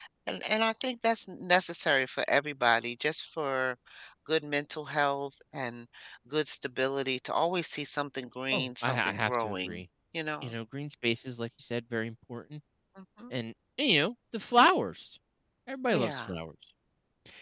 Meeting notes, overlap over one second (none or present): present